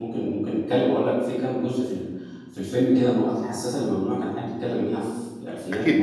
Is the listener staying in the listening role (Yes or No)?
No